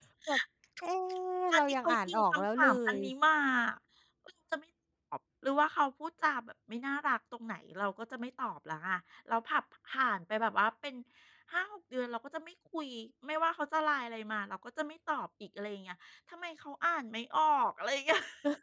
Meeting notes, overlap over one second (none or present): present